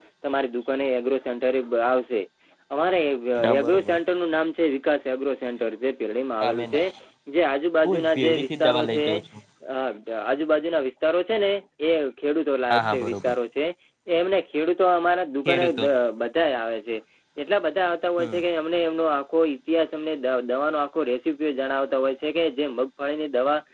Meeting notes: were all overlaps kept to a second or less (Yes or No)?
No